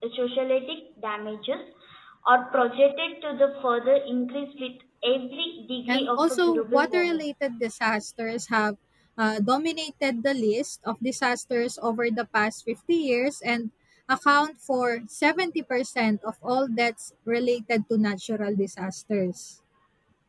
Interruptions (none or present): present